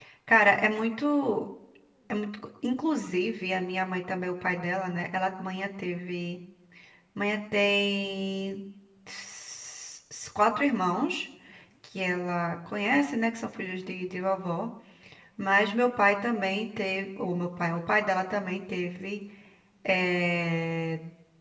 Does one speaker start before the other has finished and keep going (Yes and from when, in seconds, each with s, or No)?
No